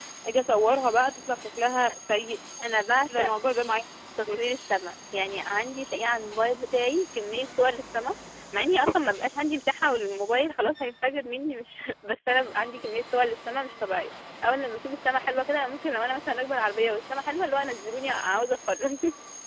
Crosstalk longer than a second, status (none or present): none